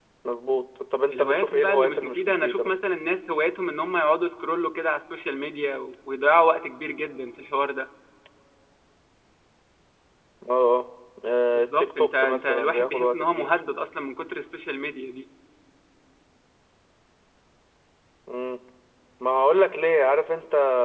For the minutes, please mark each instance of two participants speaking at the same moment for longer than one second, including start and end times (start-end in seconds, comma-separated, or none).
1.1-2.7, 11.5-13.5